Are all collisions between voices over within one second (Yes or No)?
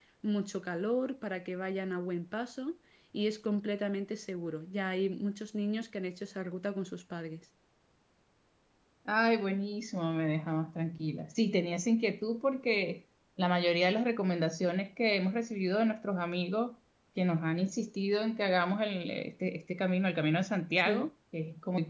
Yes